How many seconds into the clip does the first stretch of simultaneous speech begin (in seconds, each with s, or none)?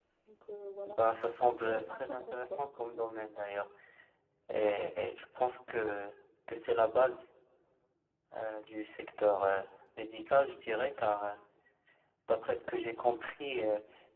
1.0 s